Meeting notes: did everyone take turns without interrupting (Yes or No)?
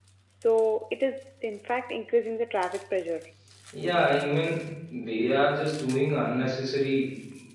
Yes